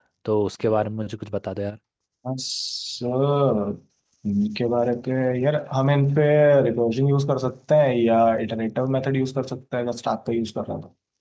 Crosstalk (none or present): none